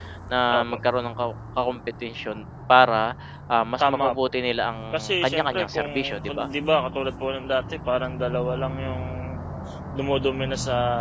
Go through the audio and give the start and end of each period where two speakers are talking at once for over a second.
5.2-6.5

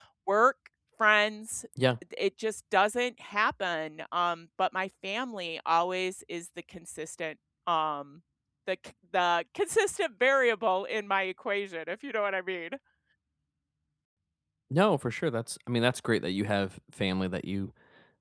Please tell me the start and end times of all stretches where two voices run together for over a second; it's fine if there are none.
none

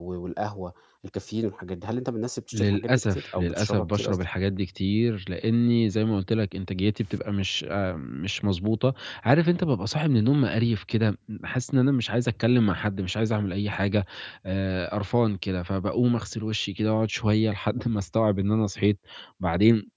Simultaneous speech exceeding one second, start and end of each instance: 2.5-4.2

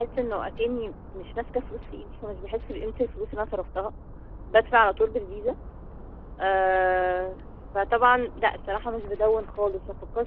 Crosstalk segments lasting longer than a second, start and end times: none

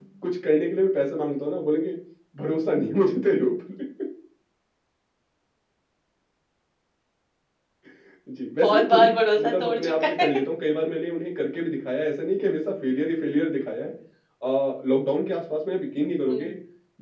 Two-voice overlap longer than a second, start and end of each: 8.6-10.2

